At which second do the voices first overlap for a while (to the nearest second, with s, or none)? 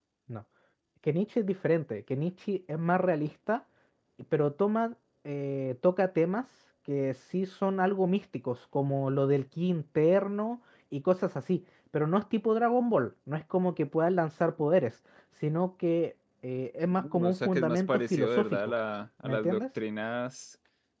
17 s